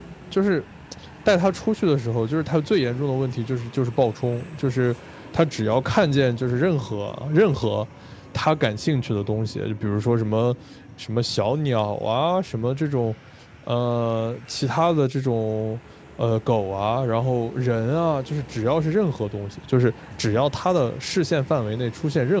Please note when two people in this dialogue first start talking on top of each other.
none

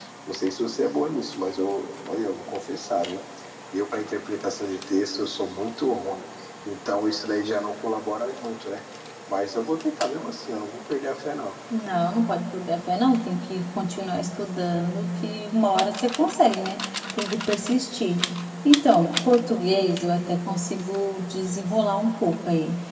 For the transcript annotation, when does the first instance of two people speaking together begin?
none

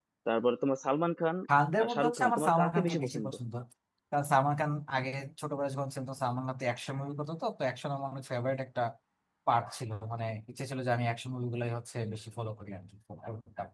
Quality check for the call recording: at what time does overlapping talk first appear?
2 s

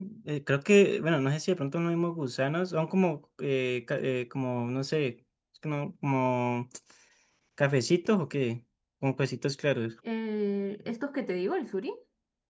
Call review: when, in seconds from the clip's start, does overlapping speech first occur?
none

